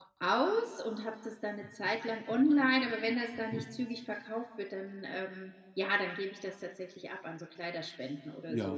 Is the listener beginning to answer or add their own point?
Yes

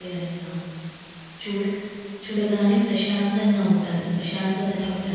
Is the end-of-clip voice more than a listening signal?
No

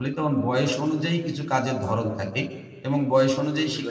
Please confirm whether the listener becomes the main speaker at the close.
No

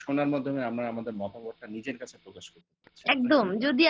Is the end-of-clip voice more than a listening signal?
Yes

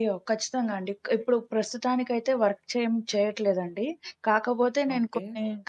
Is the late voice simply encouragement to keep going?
Yes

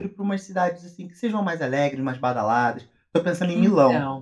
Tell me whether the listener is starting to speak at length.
No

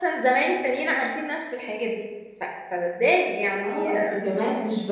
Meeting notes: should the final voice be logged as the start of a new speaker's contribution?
Yes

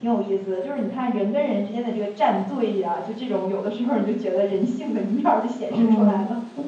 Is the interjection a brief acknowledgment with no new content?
No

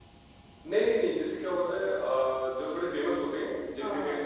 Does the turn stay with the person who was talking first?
Yes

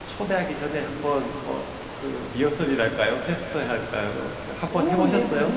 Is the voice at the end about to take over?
Yes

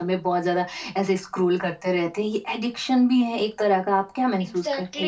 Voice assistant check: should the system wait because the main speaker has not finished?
No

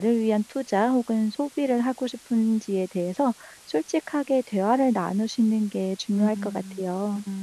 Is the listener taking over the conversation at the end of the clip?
Yes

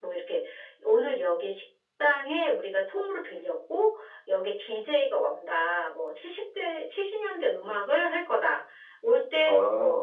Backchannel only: Yes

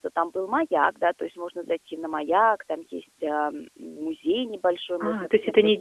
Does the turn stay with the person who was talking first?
No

